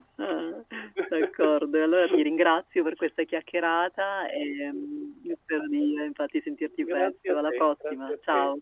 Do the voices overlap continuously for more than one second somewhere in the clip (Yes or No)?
Yes